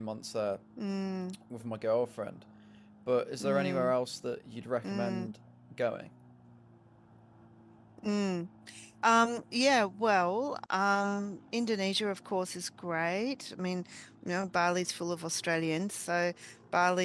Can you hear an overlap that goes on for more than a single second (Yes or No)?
No